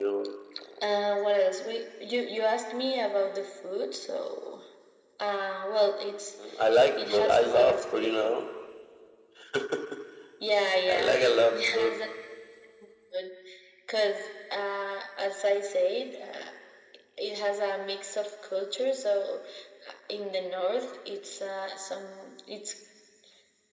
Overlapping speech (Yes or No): Yes